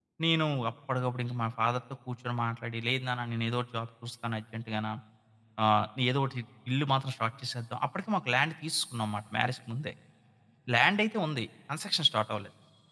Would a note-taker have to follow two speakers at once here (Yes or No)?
No